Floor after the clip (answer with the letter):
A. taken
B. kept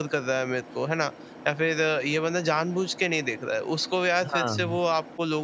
B